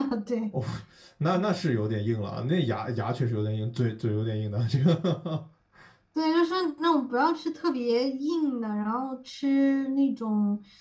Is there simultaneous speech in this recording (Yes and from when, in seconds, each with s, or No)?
No